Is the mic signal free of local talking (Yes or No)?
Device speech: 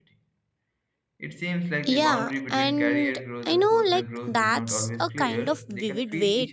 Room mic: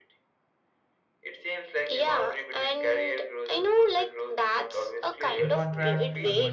No